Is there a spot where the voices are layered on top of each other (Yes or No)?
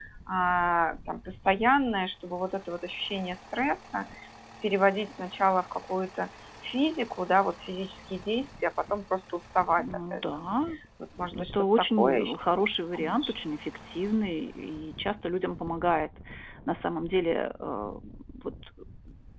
Yes